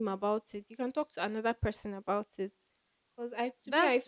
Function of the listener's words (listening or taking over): taking over